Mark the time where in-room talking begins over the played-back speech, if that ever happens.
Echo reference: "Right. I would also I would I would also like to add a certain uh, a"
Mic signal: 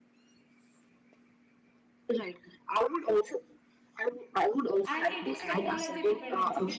4.9 s

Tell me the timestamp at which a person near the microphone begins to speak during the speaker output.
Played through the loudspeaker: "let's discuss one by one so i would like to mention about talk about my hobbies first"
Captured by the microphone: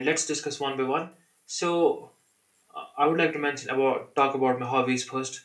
none

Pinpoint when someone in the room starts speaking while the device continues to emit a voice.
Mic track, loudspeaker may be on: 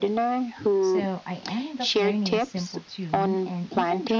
0.8 s

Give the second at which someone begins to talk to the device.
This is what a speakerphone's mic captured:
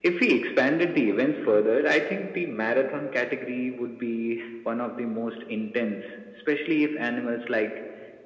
none

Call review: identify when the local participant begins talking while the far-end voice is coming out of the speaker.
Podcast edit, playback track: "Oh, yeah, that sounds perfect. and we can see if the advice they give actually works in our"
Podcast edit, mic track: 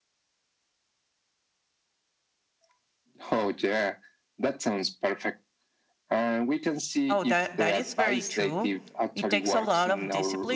7.1 s

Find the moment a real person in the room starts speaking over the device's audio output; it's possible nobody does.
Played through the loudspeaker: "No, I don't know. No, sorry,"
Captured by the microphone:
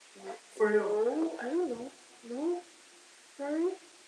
0.5 s

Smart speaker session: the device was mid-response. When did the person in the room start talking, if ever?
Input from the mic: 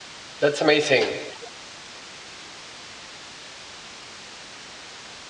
0.4 s

